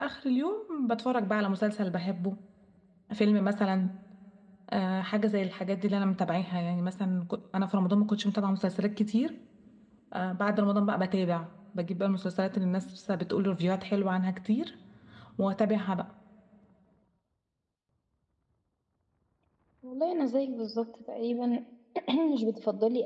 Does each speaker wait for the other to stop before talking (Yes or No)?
Yes